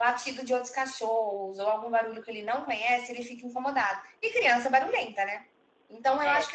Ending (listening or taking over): listening